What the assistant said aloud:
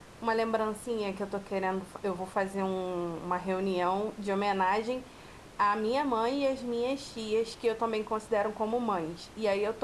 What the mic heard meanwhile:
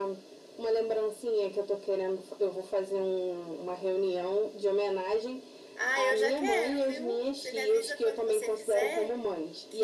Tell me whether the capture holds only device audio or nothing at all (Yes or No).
No